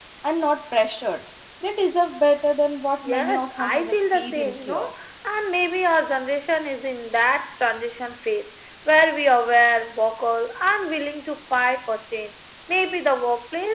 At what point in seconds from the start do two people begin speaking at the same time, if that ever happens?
3.0 s

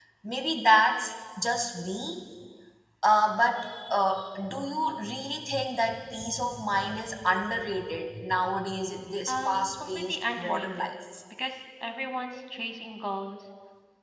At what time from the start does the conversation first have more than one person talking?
9.3 s

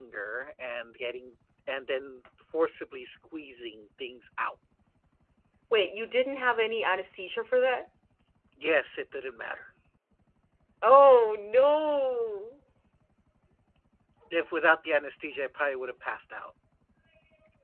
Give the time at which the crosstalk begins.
none

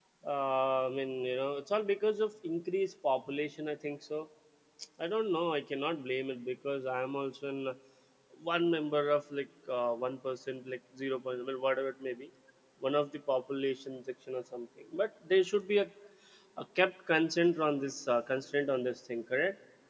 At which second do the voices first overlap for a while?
none

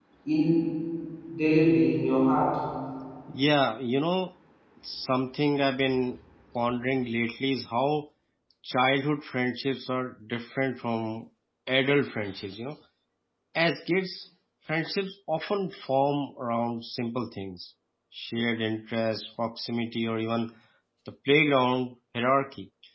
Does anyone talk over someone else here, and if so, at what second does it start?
none

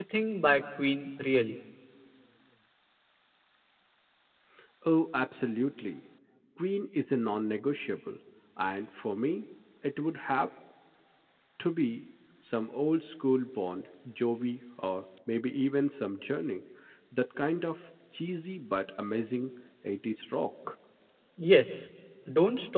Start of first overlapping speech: none

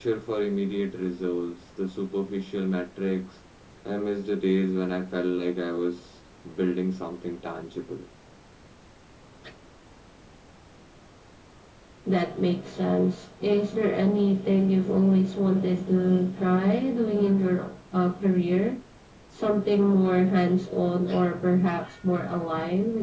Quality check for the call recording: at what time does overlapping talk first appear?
none

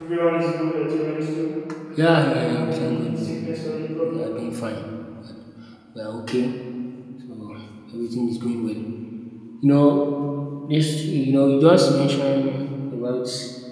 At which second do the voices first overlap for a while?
2.0 s

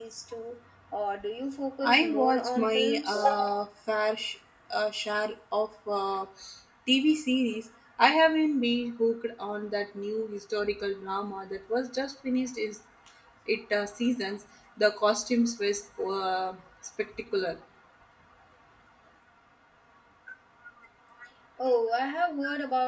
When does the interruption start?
1.8 s

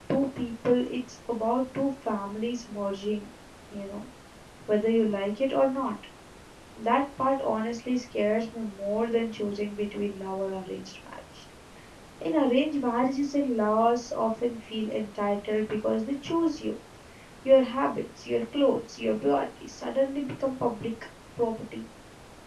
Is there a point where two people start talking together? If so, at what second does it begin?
none

